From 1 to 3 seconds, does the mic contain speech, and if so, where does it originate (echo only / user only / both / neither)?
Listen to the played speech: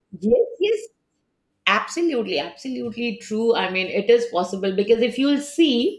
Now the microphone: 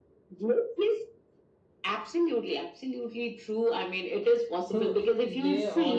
echo only